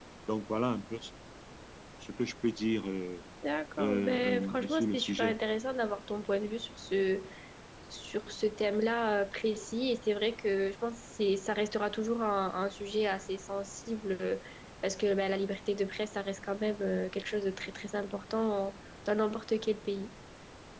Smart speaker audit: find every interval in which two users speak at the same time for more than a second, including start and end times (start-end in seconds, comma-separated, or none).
3.8-5.4